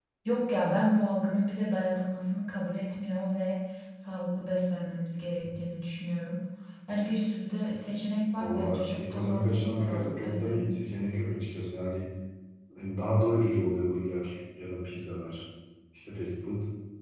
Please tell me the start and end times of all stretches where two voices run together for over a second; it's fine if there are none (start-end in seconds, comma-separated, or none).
8.3-10.7